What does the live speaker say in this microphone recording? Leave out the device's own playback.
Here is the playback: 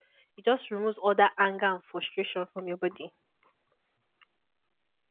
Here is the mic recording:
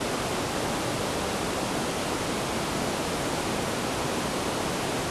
none

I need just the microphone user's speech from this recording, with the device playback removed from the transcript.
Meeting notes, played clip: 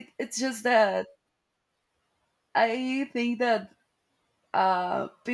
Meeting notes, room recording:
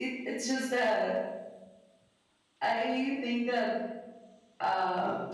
none

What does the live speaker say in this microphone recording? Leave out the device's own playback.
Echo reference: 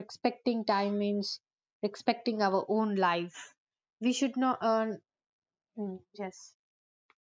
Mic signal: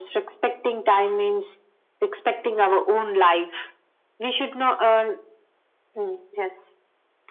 none

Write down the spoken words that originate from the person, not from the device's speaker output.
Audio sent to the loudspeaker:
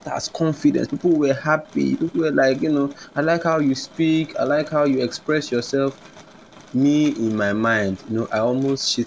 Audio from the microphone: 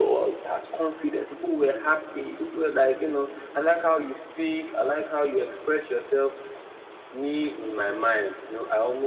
uh, Okay.

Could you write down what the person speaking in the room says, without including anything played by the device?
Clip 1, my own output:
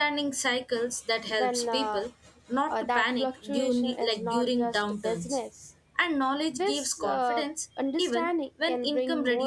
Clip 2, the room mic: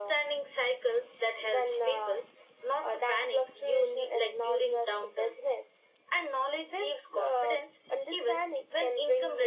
none

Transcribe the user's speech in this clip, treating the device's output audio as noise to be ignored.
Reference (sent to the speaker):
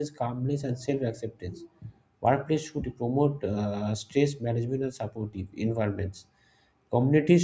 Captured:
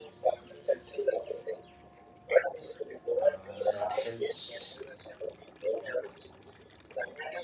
uh, that helps

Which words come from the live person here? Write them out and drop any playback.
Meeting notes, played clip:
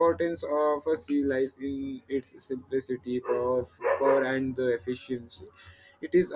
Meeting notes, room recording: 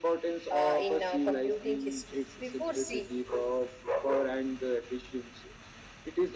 uh, in uh, computing history. Before C,

